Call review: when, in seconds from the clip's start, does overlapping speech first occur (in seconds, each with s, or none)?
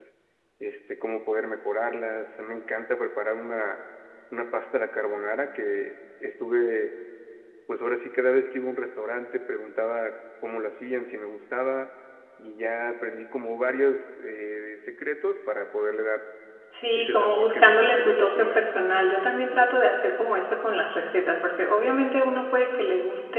16.9 s